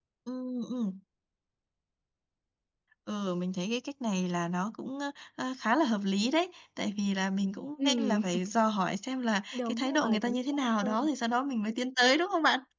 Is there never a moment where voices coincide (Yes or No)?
No